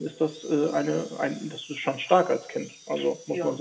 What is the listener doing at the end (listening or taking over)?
taking over